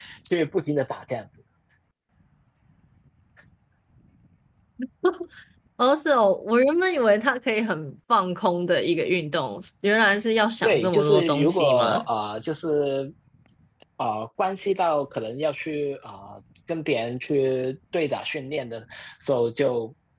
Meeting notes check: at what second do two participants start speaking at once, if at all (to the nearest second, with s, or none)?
11 s